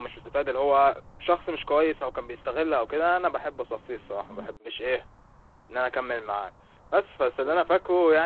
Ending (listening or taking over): listening